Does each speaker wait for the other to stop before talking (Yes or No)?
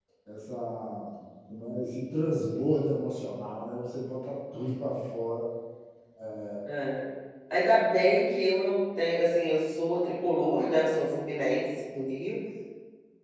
Yes